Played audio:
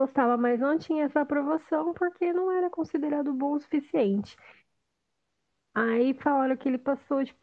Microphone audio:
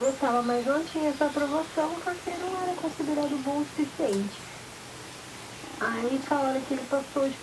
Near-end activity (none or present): none